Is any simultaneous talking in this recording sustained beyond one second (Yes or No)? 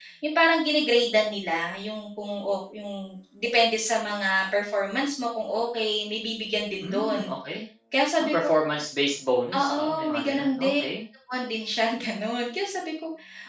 Yes